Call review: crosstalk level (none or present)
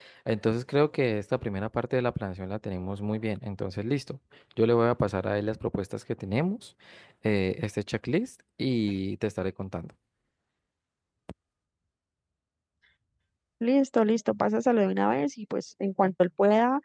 none